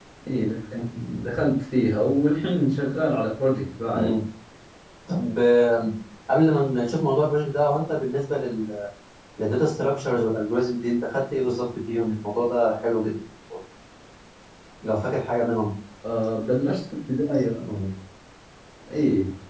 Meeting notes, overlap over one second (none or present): none